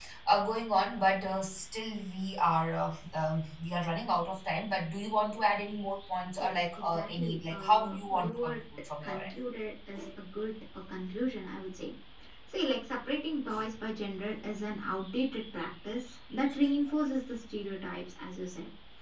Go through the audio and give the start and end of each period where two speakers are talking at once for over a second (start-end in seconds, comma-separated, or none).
6.4-8.6